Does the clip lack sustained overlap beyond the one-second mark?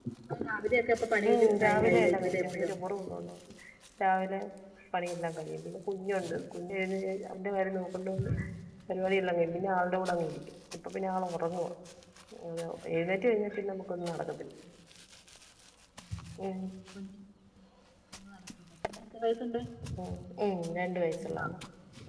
No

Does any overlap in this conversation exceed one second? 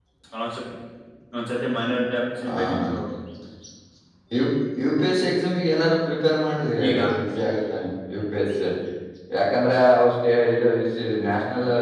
No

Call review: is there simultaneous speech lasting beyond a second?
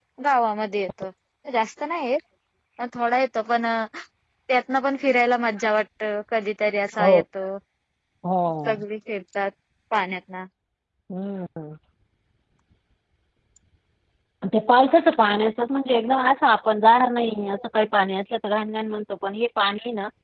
No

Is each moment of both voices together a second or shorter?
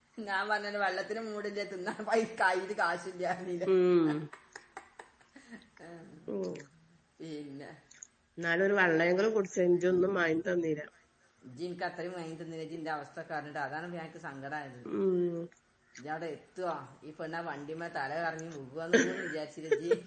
Yes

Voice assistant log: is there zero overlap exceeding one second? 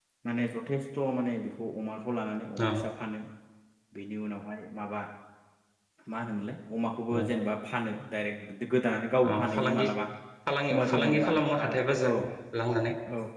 No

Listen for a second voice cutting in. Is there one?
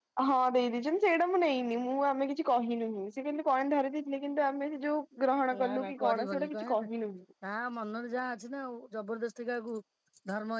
Yes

